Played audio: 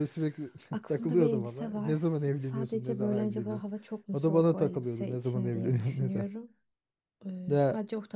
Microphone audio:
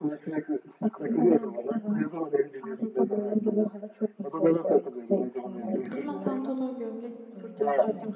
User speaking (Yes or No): Yes